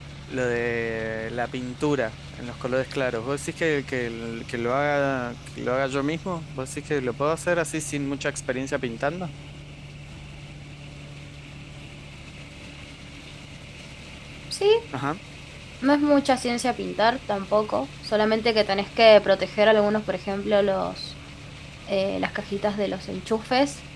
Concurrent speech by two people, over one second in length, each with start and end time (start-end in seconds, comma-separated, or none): none